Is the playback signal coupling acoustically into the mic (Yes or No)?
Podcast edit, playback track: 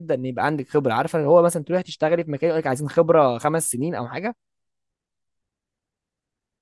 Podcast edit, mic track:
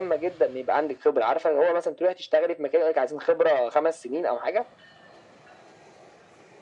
Yes